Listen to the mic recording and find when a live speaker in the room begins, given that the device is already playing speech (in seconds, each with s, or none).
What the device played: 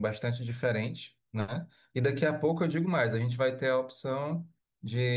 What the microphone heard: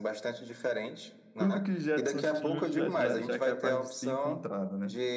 1.4 s